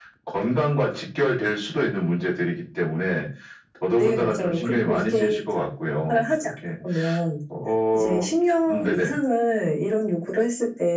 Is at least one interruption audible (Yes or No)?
Yes